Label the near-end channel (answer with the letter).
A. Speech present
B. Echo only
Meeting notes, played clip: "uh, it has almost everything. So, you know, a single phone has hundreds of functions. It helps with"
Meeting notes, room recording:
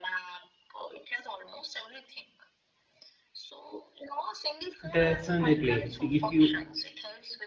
A